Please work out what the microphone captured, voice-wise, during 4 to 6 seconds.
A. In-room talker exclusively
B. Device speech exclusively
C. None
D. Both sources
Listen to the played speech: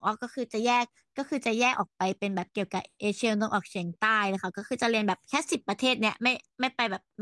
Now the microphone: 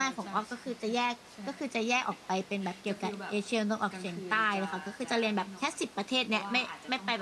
D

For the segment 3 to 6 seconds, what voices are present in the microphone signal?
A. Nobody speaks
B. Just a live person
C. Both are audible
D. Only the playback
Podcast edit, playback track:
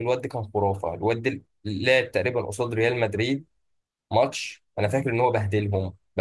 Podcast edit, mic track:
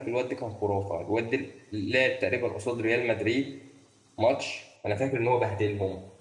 D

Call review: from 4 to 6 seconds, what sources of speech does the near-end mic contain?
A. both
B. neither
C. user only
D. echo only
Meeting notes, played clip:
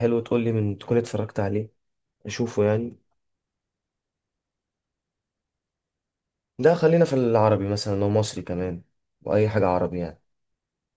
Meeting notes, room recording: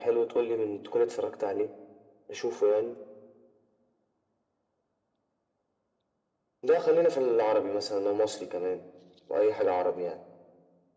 B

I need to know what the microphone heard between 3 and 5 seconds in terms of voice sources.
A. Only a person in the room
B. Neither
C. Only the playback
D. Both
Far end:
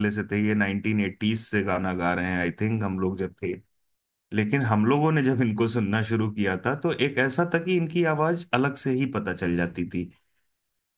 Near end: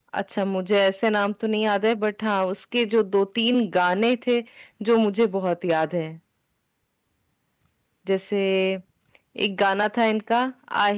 A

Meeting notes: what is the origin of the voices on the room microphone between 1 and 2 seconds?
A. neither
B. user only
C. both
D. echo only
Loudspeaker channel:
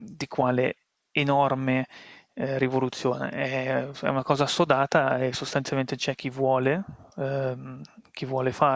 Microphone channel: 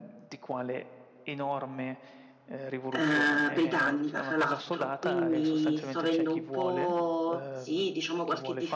D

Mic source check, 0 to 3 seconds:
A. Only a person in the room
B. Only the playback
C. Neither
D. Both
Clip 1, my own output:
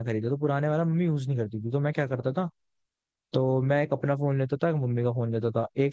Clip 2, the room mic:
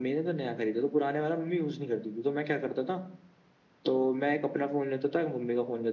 B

